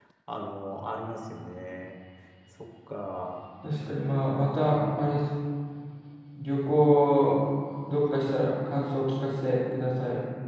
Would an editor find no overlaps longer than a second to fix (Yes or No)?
Yes